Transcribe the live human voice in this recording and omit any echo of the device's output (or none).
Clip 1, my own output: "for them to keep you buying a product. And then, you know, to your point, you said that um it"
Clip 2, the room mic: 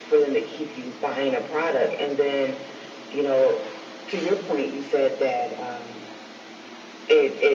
none